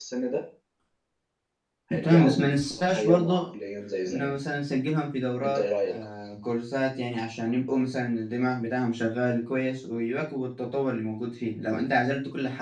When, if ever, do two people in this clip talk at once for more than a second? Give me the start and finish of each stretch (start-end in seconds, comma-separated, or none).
2.0-3.4